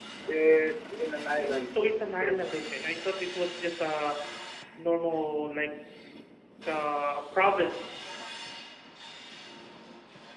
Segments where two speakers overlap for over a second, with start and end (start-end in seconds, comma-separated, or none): 1.4-2.6